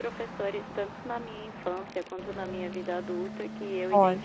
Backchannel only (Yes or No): Yes